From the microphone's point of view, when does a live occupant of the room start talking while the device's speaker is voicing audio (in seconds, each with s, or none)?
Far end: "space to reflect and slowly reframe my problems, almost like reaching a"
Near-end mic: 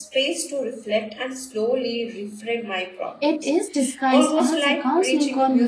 3.2 s